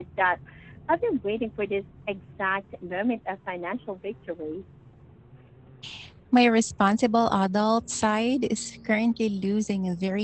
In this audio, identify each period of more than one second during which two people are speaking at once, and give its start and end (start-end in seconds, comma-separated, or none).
none